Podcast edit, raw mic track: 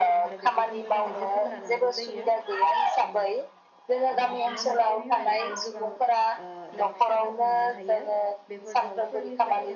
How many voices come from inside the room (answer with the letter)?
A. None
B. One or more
B